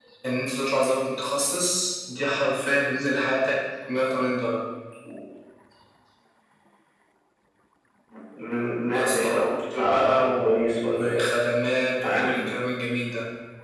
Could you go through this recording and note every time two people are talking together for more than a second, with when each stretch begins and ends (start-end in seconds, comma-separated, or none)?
8.9-11.3